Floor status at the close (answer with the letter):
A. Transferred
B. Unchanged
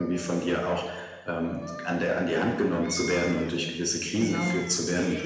B